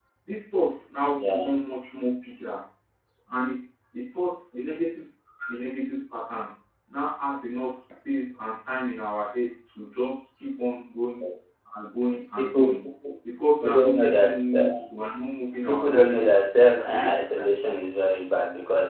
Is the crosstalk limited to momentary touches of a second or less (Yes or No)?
No